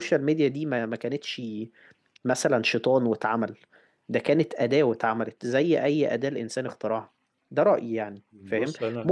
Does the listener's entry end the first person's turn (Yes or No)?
No